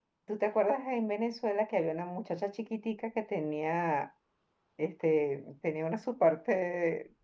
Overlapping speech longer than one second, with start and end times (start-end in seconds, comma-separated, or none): none